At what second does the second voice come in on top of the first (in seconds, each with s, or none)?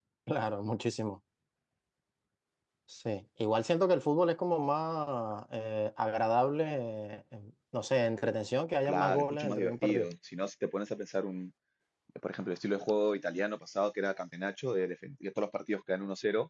8.8 s